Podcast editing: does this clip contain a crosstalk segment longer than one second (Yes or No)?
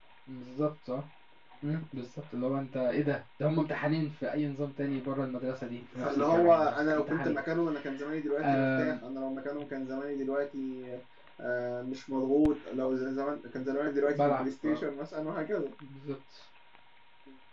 Yes